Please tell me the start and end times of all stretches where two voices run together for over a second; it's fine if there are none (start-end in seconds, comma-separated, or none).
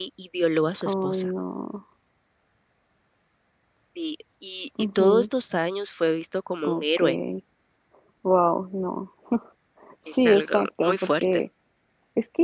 10.1-11.4